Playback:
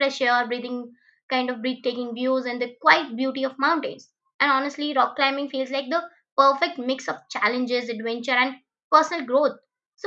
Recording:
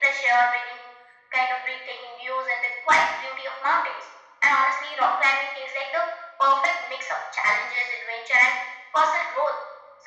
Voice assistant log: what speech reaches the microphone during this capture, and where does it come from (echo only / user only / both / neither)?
echo only